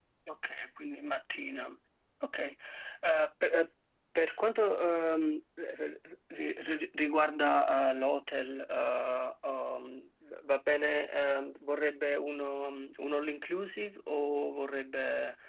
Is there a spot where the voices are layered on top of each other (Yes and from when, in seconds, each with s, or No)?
No